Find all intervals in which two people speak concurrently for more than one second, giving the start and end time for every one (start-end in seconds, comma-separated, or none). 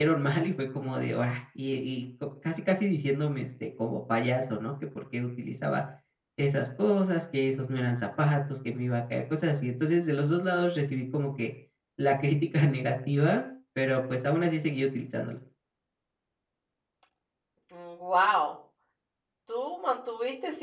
none